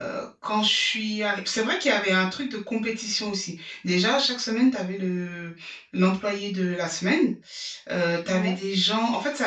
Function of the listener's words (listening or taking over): listening